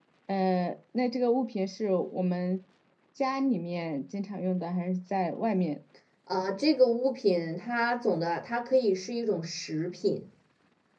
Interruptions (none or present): none